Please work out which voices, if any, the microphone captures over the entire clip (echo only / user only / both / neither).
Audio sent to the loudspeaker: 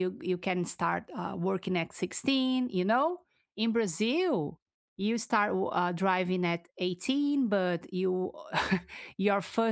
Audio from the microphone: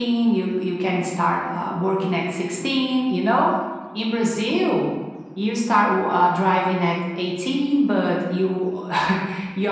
echo only